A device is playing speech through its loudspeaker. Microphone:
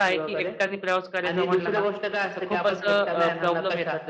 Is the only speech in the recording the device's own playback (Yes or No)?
No